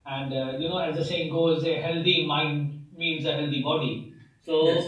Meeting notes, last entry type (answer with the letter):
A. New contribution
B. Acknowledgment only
B